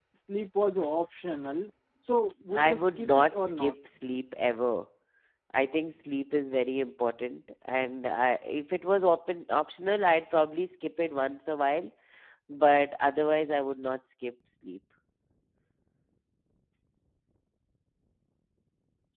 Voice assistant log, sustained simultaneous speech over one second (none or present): present